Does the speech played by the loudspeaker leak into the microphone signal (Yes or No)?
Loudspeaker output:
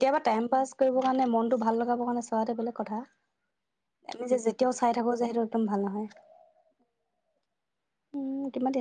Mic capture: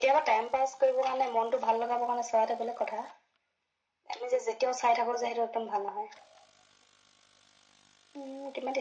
Yes